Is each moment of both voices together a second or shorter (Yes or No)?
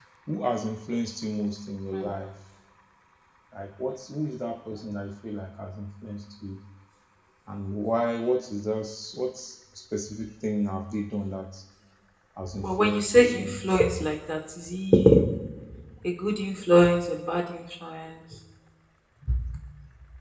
No